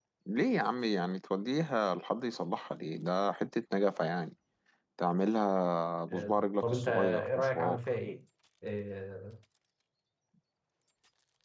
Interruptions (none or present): present